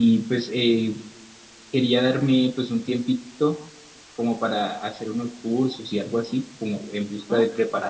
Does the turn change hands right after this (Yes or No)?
No